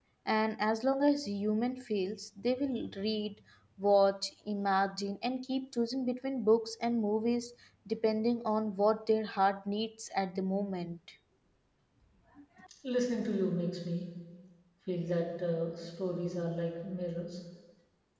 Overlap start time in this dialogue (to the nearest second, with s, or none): none